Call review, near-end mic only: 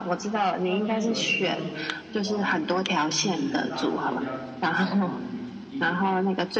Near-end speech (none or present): present